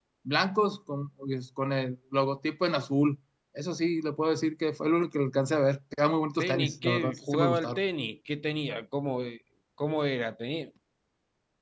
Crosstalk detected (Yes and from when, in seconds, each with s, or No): Yes, from 6.4 s